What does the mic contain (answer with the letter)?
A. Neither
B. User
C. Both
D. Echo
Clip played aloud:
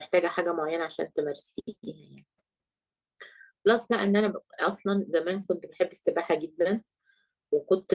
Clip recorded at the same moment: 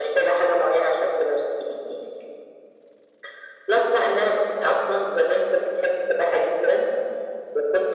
D